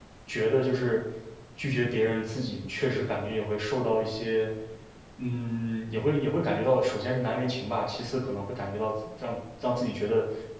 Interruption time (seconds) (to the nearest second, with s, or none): none